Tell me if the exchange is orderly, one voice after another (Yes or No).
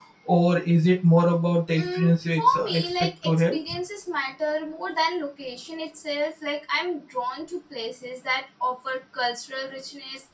No